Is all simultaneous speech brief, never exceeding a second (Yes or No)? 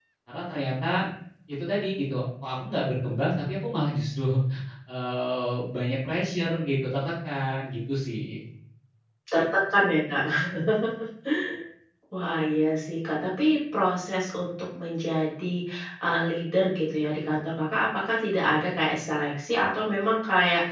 Yes